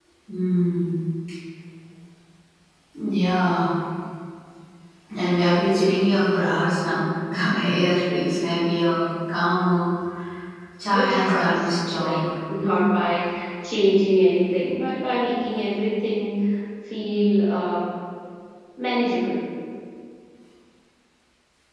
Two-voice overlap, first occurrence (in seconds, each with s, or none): 10.9 s